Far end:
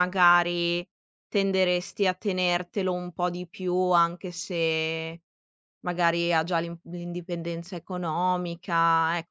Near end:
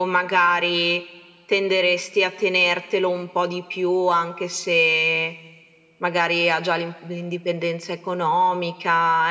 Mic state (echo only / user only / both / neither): echo only